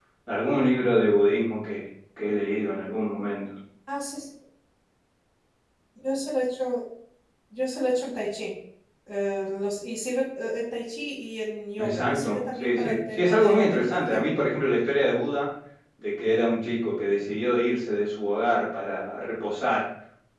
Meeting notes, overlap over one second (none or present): present